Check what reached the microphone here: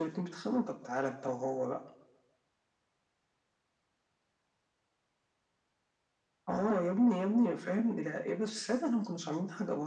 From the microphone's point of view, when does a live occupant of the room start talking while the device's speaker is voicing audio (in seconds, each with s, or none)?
none